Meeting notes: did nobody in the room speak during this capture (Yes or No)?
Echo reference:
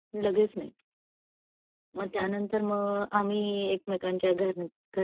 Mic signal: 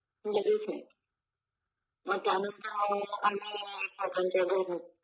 Yes